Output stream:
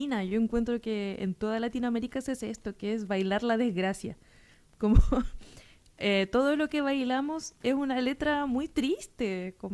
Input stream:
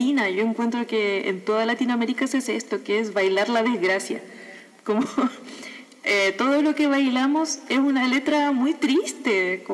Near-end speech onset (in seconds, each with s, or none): none